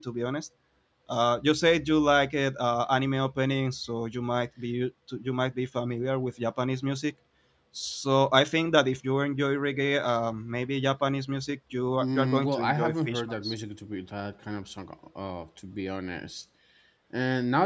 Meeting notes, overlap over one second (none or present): present